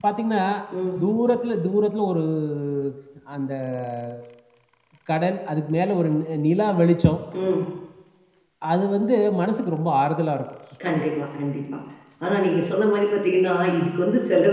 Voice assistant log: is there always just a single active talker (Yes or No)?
Yes